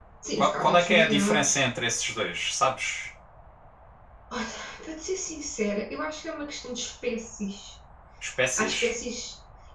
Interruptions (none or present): present